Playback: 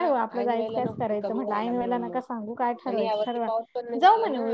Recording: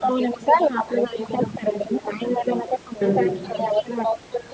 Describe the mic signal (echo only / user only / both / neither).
both